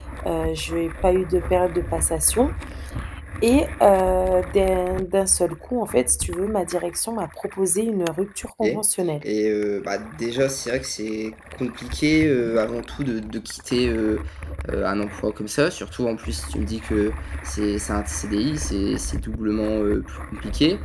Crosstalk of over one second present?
No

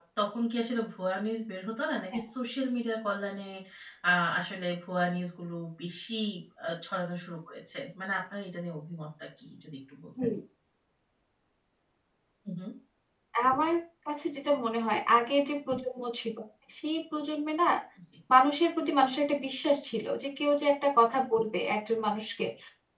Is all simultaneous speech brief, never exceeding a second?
Yes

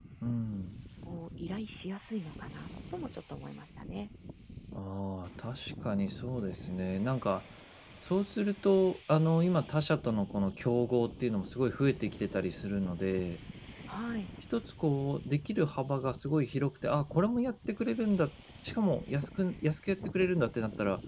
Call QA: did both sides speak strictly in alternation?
Yes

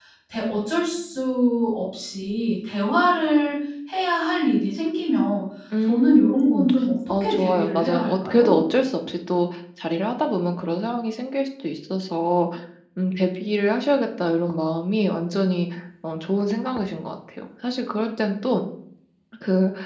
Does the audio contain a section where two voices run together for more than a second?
Yes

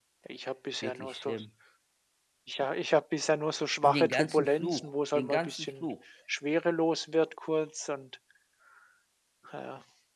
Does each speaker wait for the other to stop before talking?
No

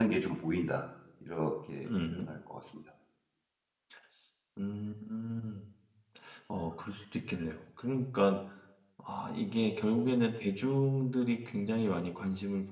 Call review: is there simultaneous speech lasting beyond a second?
No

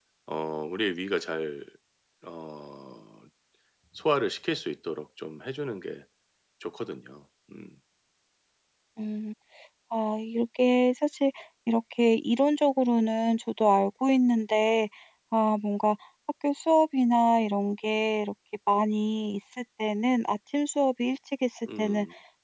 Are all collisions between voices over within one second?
Yes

